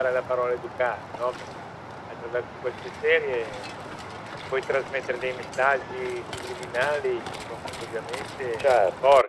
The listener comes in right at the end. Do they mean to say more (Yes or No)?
Yes